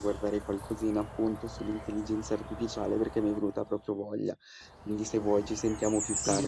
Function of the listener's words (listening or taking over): taking over